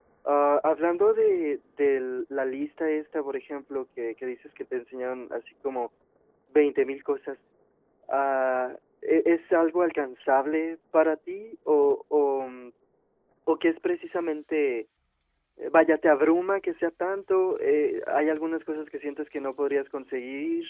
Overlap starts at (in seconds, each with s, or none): none